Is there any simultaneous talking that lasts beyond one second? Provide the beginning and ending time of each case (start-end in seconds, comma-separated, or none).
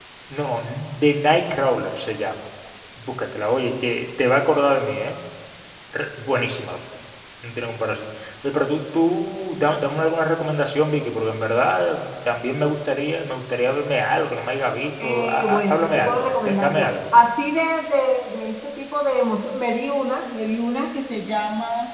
15.0-16.9